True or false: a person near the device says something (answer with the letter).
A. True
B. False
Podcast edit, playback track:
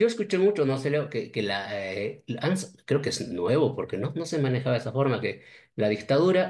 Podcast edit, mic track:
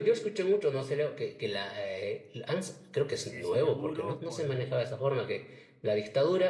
A